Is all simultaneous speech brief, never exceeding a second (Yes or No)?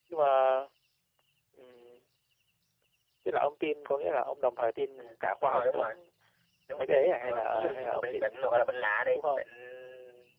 No